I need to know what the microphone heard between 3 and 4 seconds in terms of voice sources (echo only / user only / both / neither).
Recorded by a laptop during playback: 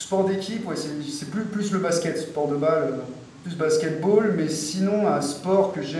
user only